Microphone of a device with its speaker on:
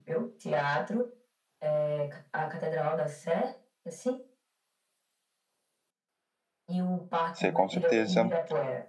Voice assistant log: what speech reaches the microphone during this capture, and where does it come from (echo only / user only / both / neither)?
both